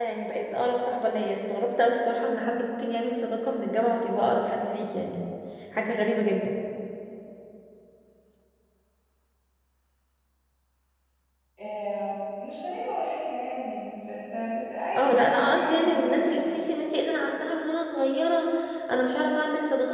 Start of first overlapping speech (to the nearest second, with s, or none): 15 s